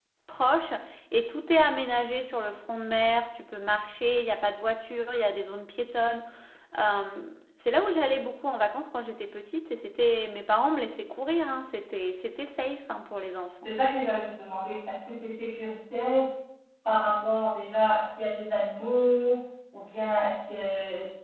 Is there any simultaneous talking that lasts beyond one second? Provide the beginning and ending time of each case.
none

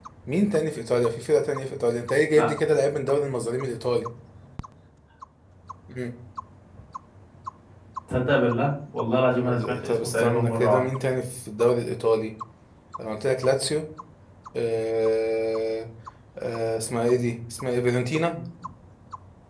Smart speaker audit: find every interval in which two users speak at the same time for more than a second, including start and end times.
9.3-10.9

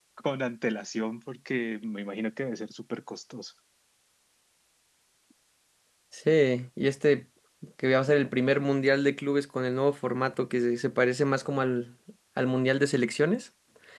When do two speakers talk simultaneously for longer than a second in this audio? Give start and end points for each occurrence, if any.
none

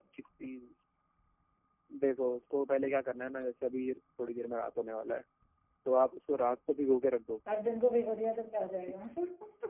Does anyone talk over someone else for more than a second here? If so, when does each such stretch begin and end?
none

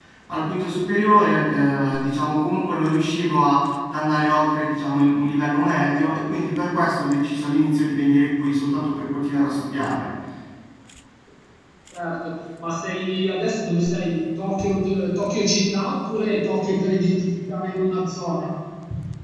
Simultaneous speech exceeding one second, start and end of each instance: none

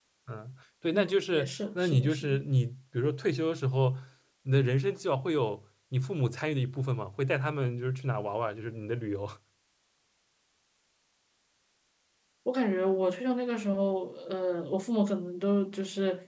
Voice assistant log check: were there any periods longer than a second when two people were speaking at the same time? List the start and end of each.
0.9-2.3

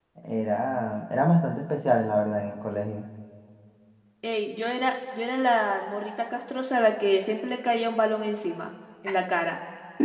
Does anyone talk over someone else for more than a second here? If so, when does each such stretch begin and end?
none

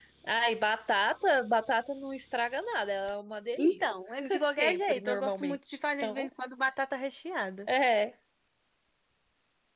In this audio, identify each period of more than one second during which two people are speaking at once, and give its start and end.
4.4-6.3

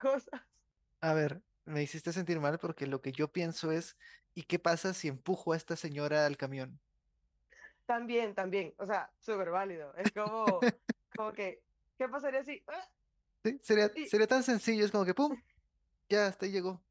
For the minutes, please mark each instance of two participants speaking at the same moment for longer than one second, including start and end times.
none

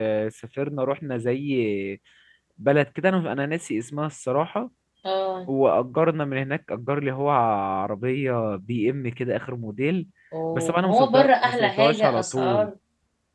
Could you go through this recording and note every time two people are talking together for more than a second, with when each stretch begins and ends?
10.5-12.7

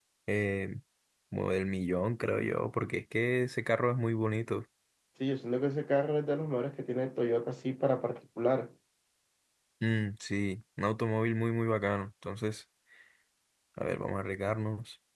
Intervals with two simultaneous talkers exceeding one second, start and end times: none

